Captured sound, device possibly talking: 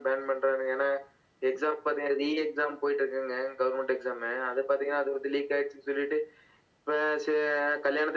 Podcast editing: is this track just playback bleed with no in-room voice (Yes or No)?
Yes